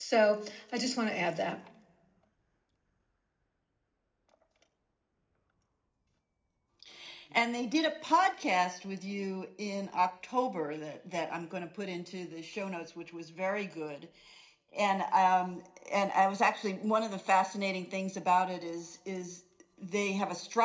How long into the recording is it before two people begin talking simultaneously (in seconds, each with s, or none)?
none